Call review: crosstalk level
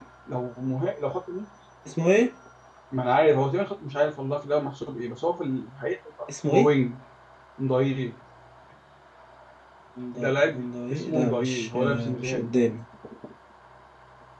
present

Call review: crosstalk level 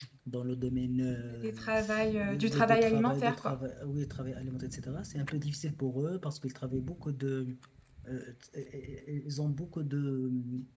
present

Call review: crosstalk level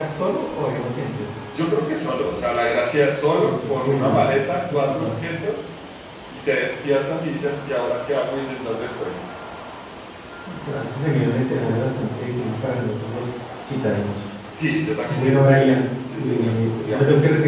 present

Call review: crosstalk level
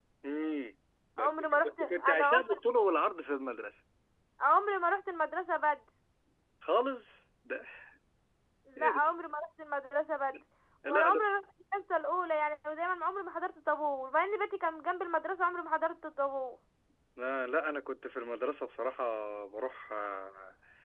present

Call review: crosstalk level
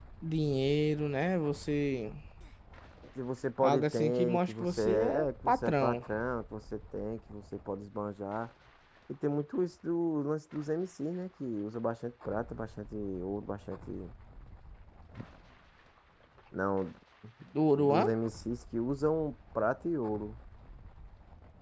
present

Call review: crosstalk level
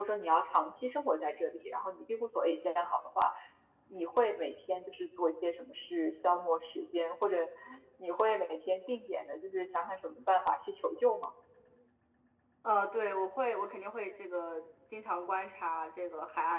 none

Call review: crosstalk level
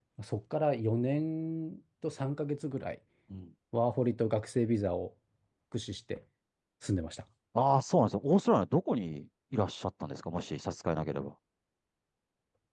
none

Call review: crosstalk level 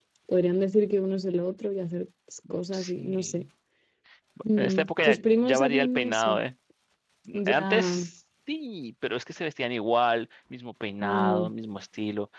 present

